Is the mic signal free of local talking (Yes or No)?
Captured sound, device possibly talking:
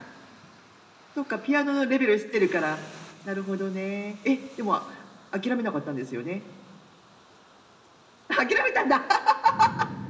Yes